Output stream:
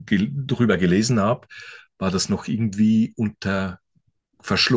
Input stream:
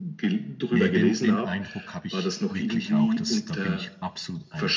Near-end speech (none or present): present